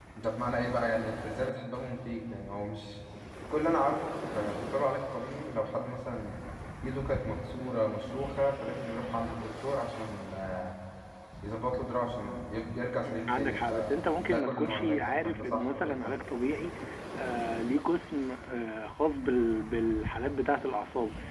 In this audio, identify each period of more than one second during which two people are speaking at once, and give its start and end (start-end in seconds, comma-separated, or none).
13.3-16.2